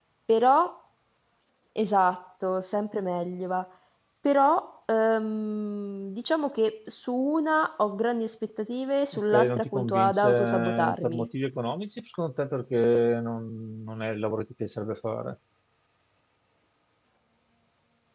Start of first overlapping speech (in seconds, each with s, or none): 9.3 s